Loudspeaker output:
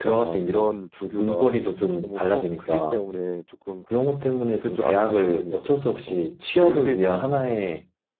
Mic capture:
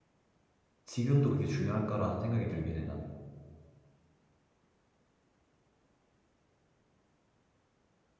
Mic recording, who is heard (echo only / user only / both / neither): user only